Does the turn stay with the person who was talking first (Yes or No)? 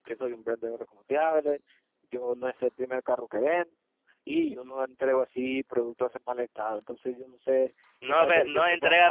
No